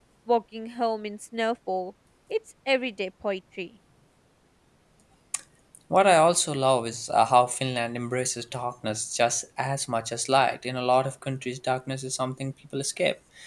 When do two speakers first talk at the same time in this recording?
none

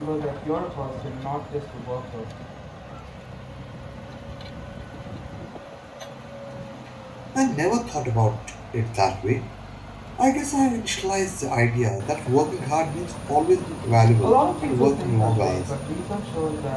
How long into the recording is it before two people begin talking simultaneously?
14 s

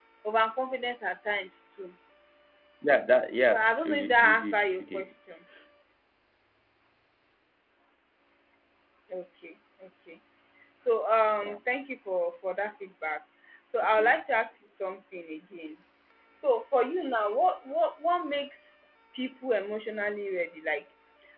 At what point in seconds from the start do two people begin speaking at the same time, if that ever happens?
4 s

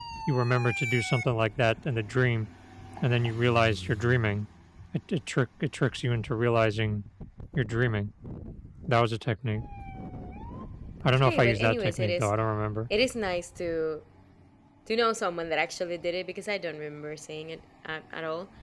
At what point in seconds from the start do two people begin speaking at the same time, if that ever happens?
11 s

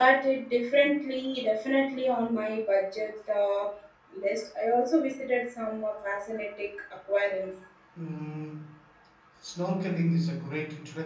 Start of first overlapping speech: none

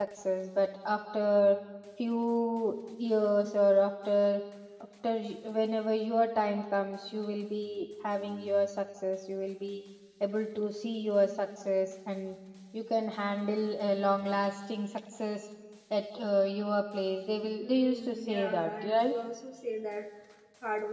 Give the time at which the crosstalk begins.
18 s

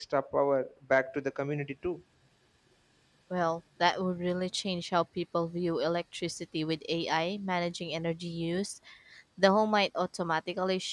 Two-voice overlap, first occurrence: none

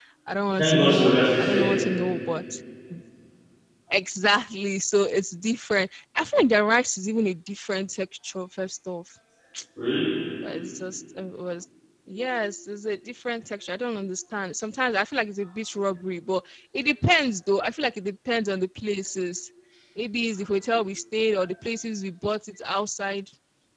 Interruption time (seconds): 1 s

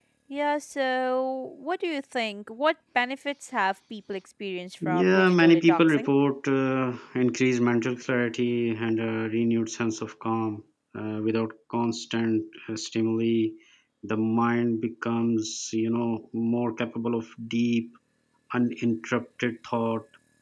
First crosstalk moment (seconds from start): 5 s

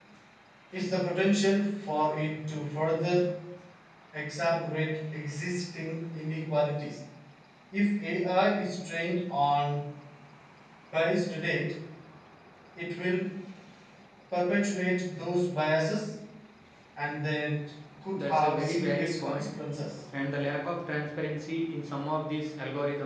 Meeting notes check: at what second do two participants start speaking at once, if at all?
18 s

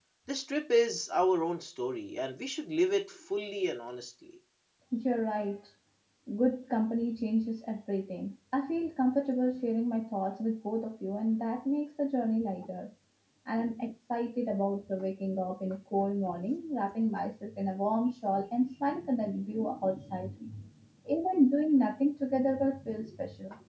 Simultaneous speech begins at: none

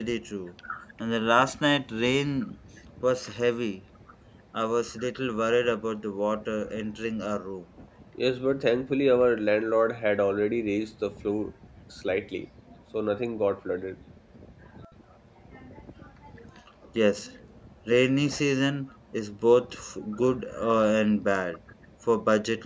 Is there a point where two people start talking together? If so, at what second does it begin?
none

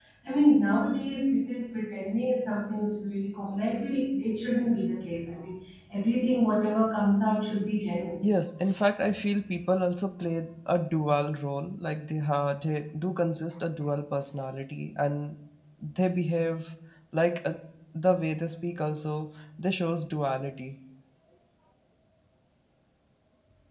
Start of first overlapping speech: none

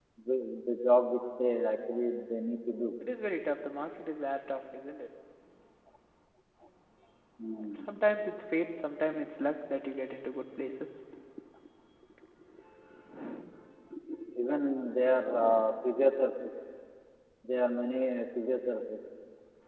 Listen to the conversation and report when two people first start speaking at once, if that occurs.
none

